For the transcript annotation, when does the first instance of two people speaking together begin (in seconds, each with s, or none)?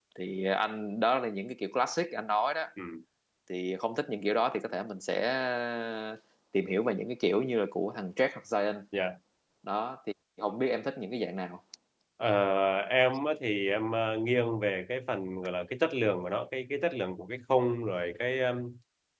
none